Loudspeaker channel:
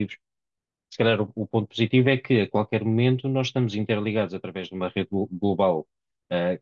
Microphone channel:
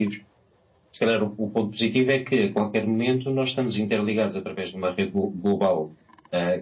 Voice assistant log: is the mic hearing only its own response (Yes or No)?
Yes